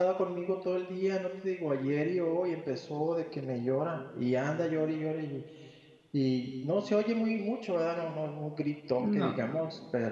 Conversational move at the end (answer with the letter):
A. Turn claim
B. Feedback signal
B